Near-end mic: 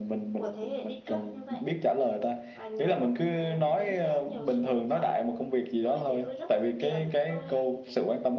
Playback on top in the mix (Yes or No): Yes